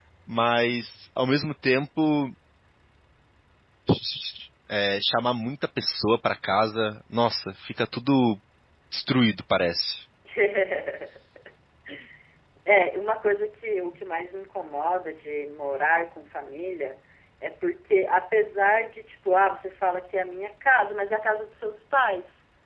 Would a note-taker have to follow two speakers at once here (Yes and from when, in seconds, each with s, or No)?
No